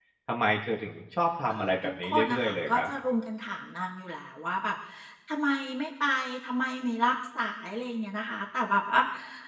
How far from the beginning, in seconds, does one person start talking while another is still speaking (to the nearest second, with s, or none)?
1 s